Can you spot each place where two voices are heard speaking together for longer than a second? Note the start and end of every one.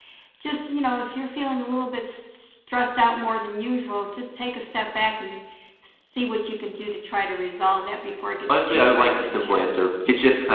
8.5-9.7

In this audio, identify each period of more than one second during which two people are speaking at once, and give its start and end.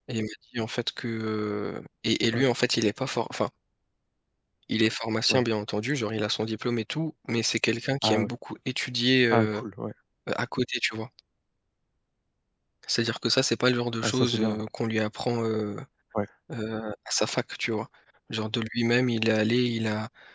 none

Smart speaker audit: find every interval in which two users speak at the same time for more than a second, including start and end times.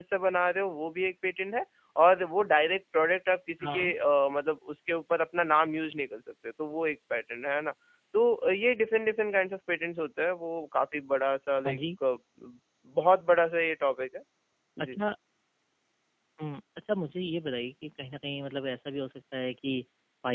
none

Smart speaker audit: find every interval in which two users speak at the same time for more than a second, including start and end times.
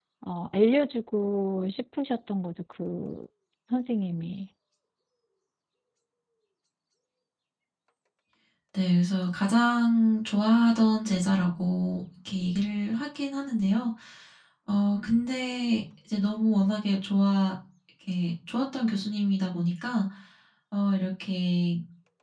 none

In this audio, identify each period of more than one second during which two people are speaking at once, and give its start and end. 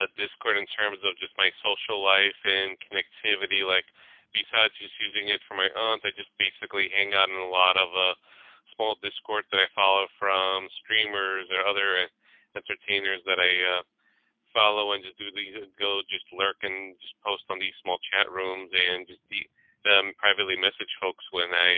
none

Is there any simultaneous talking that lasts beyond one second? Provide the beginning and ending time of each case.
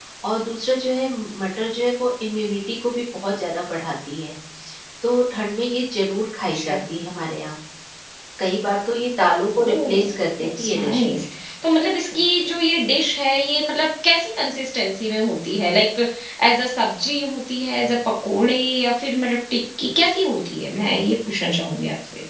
9.6-11.2

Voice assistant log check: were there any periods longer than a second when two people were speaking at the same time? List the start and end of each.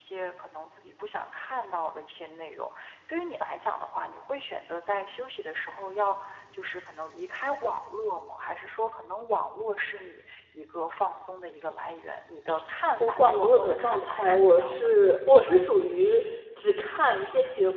13.0-14.9

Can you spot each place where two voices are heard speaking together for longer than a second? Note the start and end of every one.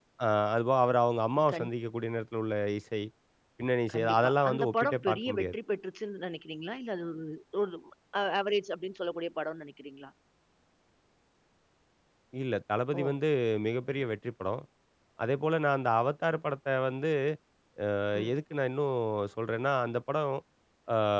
3.9-5.5

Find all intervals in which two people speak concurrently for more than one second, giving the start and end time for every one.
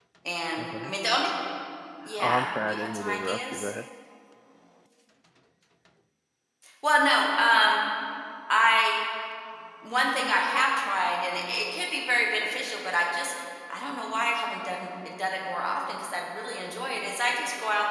2.2-3.7

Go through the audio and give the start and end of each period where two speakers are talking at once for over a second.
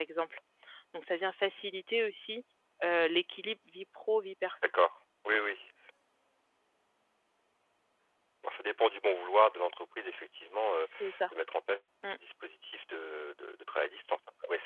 none

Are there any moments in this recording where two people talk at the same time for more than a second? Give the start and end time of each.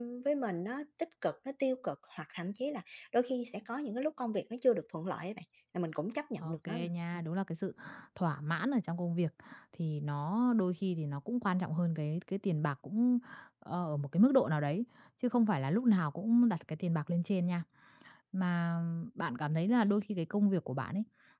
none

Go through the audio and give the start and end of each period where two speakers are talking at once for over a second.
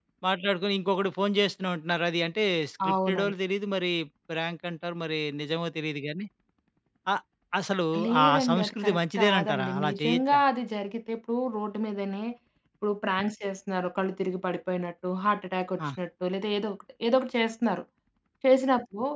8.2-10.4

